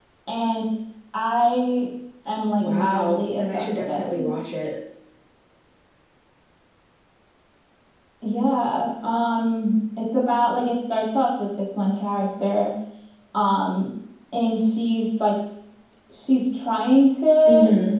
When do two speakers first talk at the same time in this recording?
2.6 s

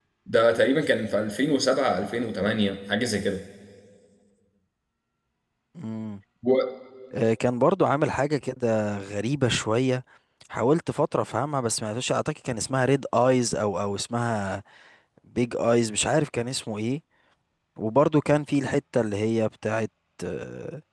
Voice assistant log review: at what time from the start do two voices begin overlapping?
none

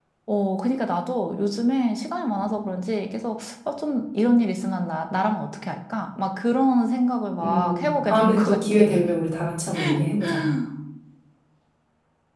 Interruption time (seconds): 7.4 s

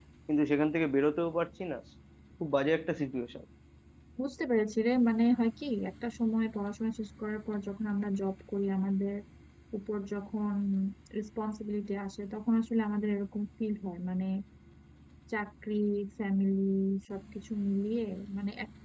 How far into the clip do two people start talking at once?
none

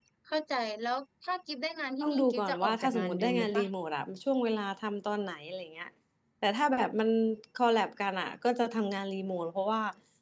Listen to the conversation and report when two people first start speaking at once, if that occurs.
2.0 s

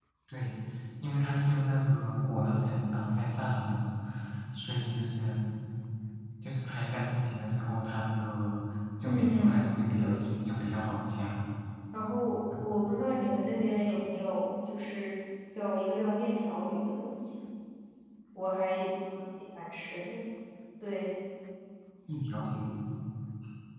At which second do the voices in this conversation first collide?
9.0 s

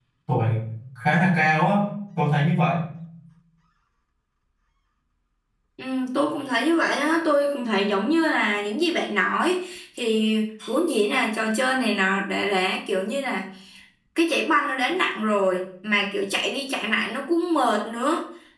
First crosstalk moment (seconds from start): none

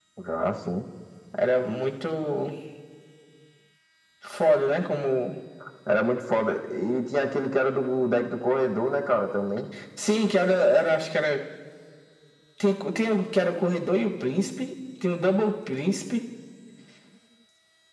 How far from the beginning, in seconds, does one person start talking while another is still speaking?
none

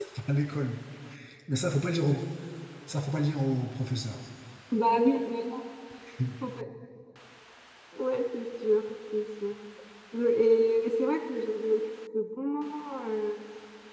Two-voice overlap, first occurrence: none

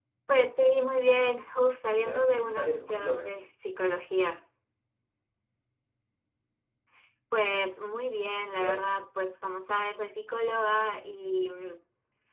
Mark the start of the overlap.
1.9 s

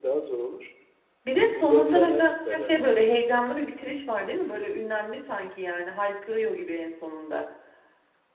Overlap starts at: 1.5 s

